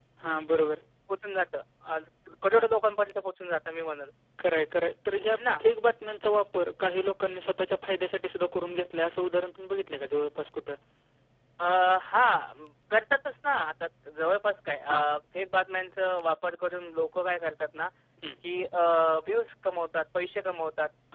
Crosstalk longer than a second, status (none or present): none